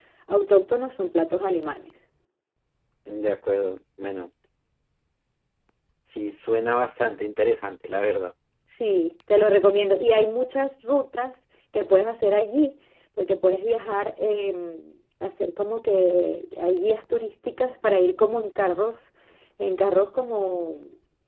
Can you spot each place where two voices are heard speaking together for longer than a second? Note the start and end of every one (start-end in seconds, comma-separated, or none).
none